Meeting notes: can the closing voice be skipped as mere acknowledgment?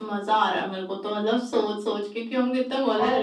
Yes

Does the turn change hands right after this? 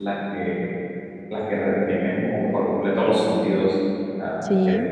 No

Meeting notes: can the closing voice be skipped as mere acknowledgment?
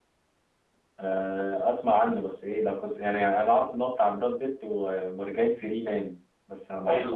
No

